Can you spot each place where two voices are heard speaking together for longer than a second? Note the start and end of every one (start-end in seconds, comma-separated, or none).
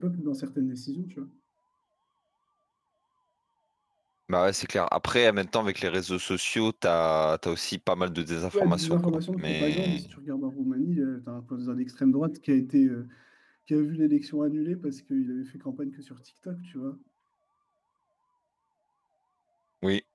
8.5-10.0